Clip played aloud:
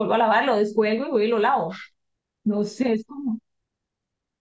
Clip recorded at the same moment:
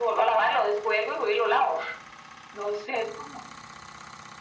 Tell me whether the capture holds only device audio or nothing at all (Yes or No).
Yes